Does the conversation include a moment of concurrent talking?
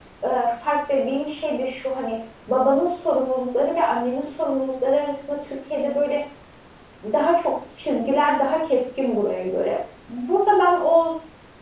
No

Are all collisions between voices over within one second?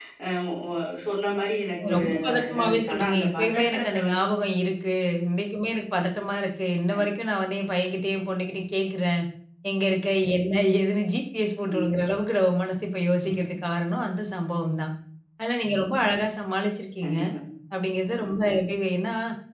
No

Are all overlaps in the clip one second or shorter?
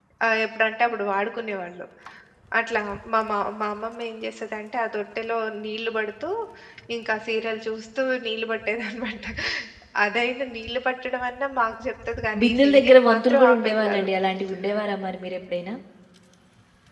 No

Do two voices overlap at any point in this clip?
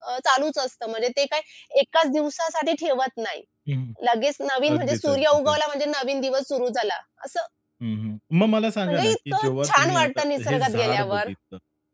Yes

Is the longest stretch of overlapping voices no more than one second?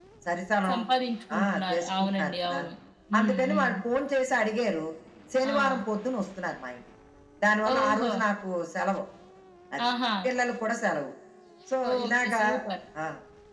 No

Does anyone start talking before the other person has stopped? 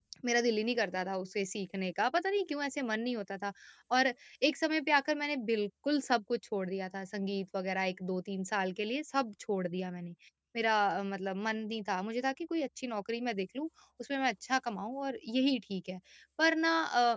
No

